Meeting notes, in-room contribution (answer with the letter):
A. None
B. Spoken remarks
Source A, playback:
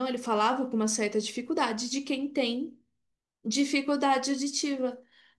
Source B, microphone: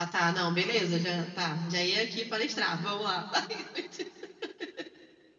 B